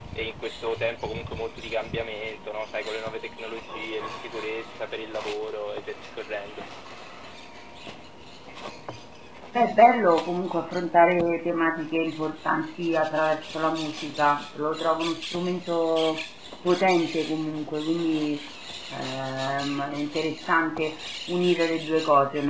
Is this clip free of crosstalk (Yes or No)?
Yes